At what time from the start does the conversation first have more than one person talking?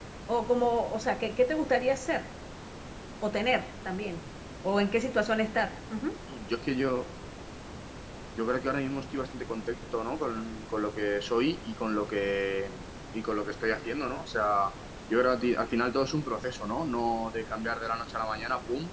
none

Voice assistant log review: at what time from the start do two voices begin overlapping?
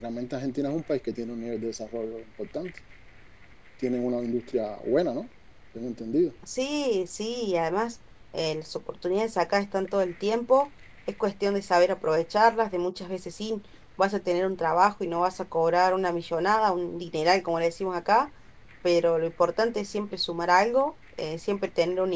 none

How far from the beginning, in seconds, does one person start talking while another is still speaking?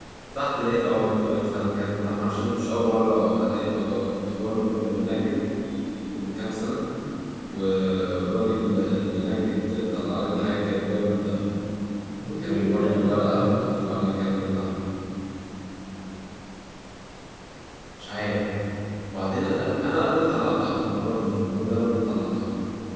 12.4 s

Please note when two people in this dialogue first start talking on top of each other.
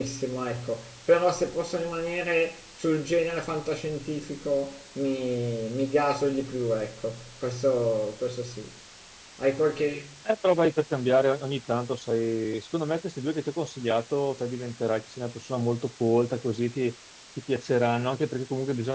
none

